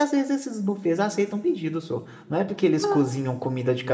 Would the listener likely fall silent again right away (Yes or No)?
Yes